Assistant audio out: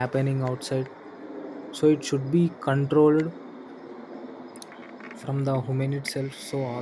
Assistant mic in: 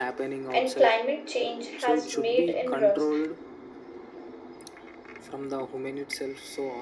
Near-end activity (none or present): present